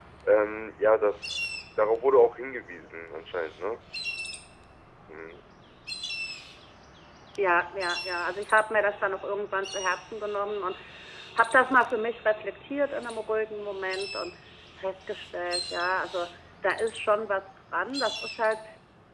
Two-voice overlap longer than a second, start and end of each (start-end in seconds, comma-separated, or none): none